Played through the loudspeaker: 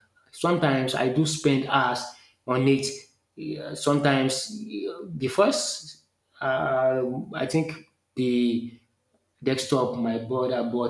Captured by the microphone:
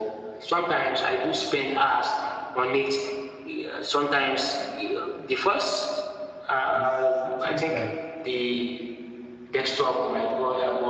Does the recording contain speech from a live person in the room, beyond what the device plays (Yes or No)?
Yes